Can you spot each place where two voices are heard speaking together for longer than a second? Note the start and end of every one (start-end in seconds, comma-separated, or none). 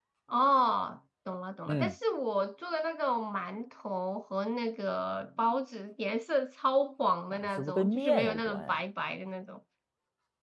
7.3-8.8